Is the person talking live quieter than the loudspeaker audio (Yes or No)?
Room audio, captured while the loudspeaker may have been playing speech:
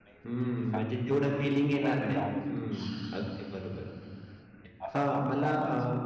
No